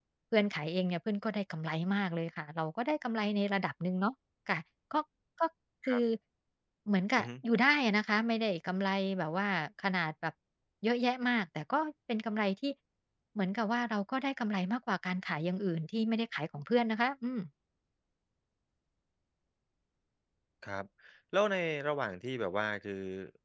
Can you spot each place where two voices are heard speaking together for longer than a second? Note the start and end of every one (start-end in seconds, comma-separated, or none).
none